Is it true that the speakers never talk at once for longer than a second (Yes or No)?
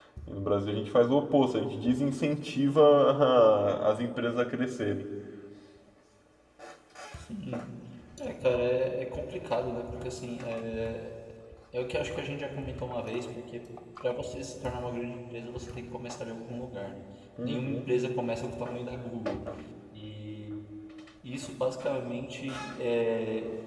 Yes